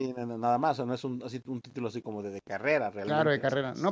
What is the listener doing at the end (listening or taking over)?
taking over